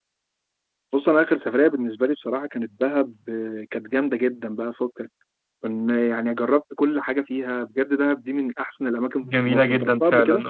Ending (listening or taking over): taking over